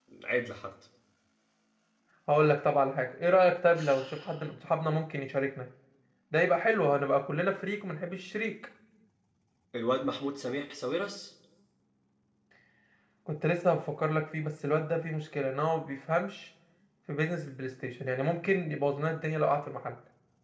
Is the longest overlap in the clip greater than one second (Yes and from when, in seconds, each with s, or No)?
No